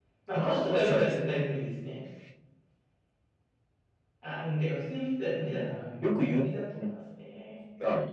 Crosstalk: present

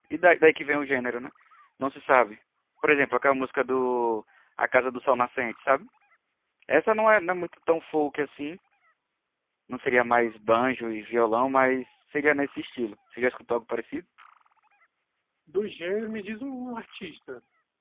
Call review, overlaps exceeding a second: none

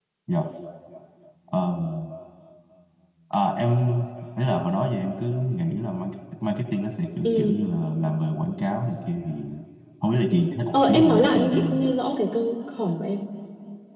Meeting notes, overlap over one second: present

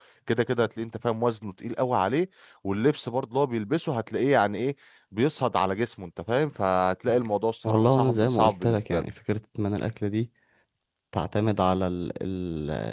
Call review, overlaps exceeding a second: present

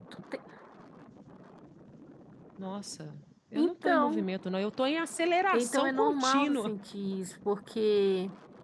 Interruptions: present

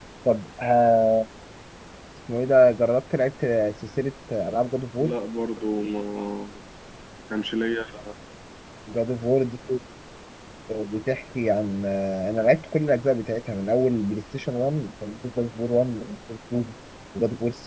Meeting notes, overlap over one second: none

